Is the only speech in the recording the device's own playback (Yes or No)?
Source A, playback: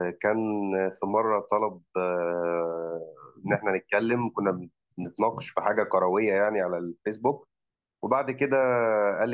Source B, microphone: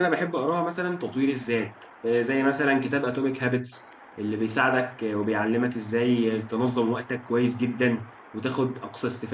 No